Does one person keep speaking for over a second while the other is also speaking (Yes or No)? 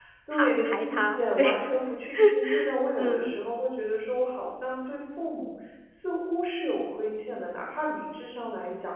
Yes